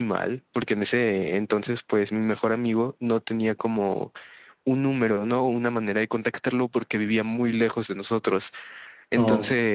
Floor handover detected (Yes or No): No